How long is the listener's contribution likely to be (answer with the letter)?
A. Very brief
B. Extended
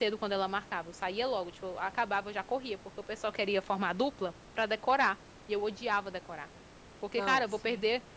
A